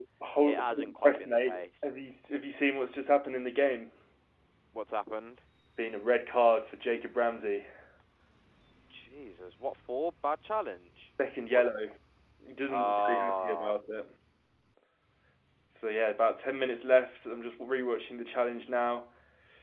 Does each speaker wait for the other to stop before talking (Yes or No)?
No